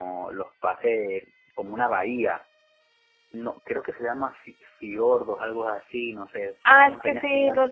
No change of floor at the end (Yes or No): No